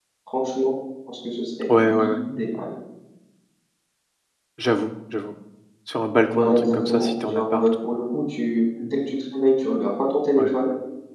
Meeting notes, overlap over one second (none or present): present